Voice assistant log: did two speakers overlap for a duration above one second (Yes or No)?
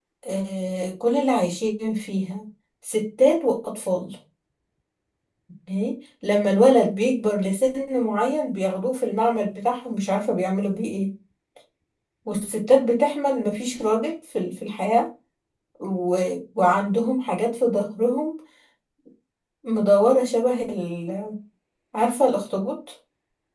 No